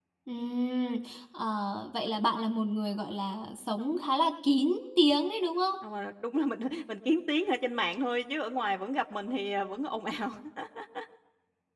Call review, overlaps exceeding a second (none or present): none